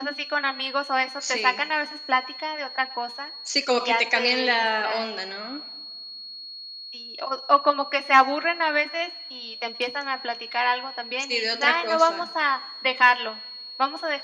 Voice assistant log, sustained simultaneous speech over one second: present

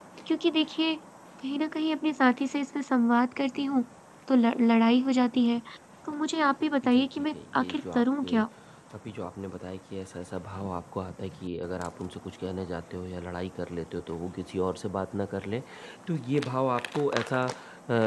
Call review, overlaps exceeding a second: present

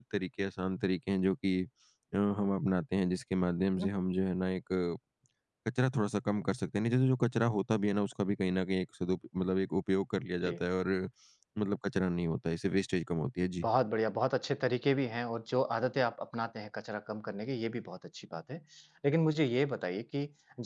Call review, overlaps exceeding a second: none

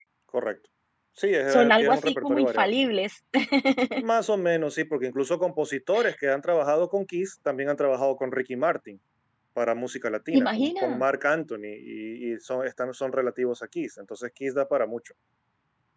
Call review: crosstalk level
present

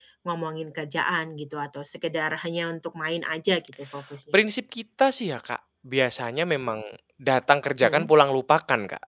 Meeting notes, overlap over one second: none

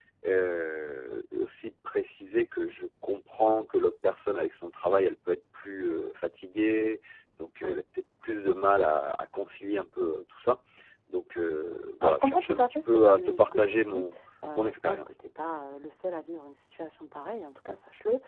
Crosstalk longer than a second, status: present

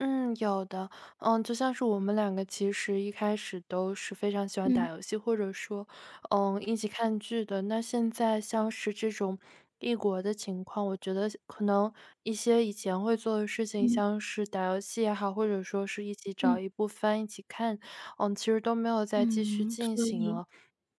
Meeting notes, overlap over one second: present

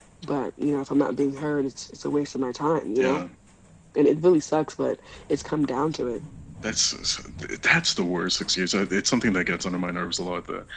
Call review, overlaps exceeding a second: none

